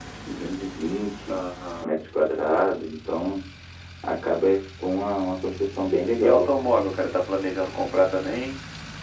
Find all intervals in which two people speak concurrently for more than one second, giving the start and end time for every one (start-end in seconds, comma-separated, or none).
none